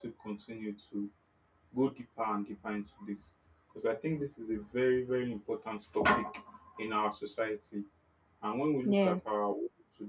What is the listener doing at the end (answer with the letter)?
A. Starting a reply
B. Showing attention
B